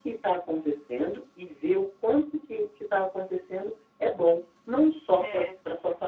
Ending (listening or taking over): listening